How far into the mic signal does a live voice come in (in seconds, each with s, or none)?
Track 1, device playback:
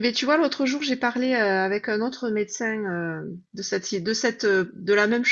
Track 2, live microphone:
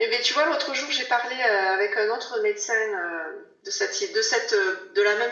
none